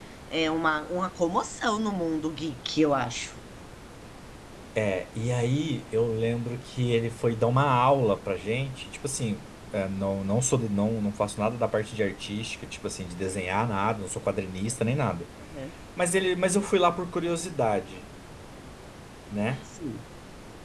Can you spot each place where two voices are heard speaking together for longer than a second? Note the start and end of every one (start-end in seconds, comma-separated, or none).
none